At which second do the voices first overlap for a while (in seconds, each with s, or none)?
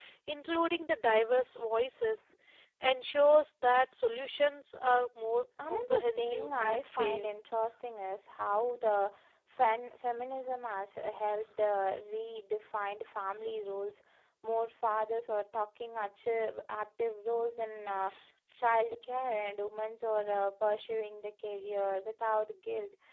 5.6 s